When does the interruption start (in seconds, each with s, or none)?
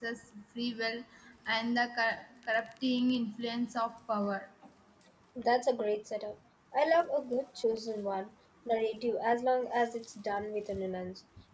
none